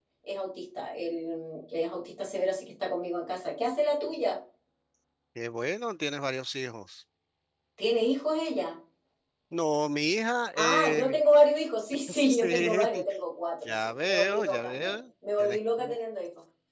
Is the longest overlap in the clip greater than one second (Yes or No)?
Yes